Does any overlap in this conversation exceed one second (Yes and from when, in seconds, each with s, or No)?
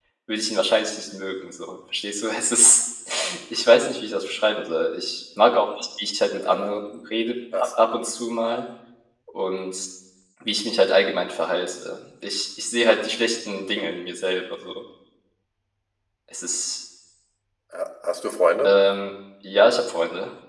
No